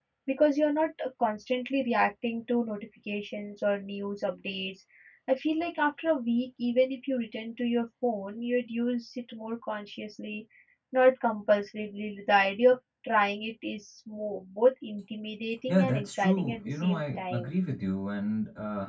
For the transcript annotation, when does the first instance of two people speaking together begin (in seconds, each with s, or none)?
15.7 s